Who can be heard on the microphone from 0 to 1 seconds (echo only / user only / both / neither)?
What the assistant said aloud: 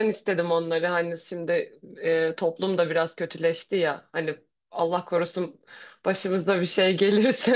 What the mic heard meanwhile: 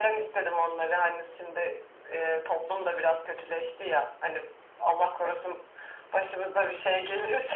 echo only